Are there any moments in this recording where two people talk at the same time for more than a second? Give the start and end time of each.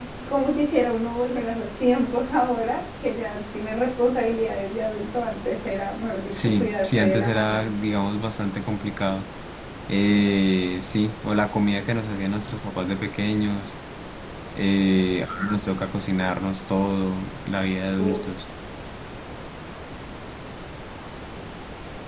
6.3-7.7

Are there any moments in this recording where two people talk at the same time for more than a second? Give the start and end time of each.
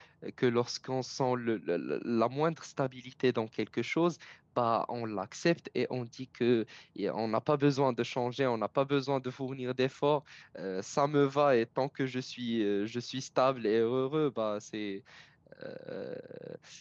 none

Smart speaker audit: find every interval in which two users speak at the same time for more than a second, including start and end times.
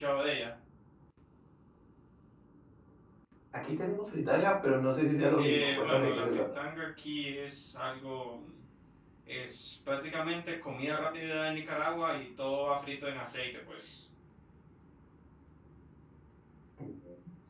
5.4-6.6

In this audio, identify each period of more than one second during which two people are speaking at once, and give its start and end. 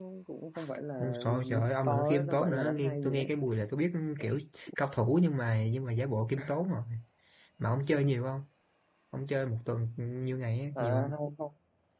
1.0-3.3

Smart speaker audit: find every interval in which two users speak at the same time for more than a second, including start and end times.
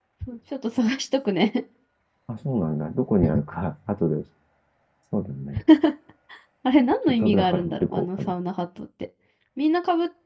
7.1-8.3

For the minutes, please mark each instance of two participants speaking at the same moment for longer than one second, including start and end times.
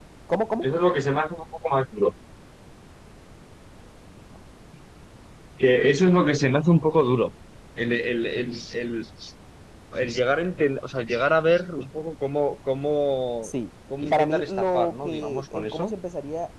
14.1-15.9

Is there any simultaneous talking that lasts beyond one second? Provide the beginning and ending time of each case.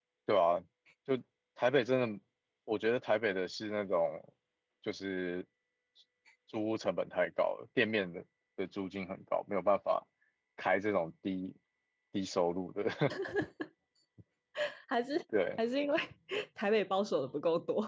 none

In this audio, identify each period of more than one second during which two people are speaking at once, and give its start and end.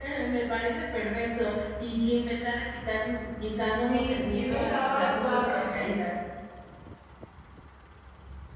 3.9-5.7

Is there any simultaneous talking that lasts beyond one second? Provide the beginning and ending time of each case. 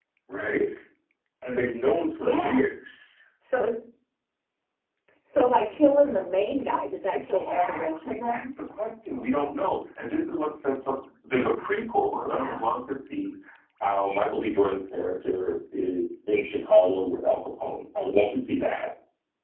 7.1-8.4

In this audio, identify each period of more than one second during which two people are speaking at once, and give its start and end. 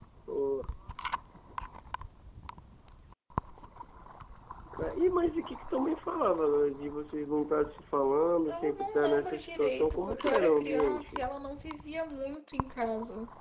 8.4-11.2

